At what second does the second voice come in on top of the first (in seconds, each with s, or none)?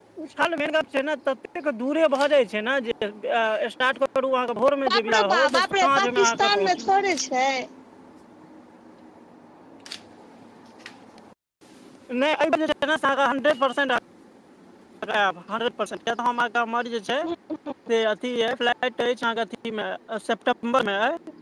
4.9 s